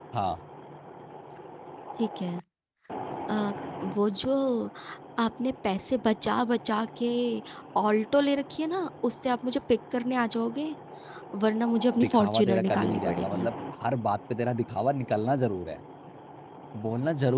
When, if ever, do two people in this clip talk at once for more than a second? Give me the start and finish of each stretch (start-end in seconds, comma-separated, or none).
12.0-13.5